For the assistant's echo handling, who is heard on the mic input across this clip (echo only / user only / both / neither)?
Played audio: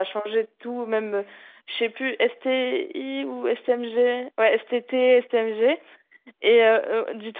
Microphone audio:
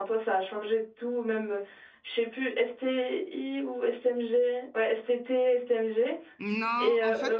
both